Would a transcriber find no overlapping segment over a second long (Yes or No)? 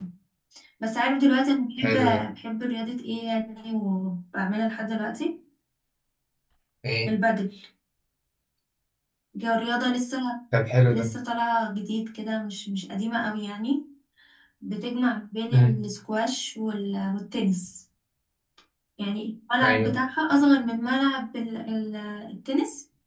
Yes